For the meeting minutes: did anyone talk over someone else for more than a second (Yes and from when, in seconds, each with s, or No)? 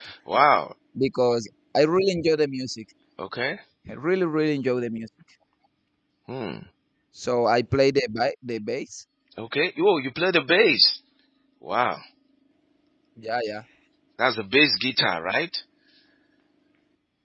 No